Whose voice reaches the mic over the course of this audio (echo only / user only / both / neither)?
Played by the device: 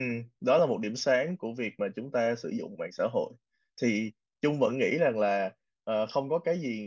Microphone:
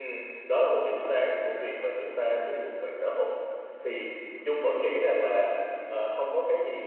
echo only